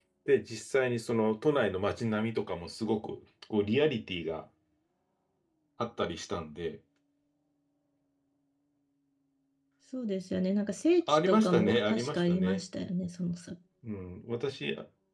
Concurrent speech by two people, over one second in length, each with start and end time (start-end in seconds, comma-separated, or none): 11.1-12.6